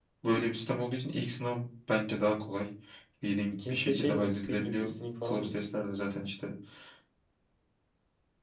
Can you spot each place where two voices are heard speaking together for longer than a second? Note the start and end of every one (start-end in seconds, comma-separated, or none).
3.5-4.9